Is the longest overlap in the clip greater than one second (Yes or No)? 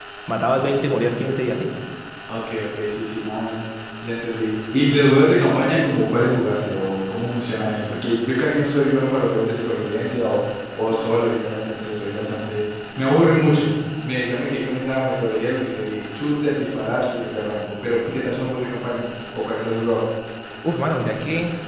No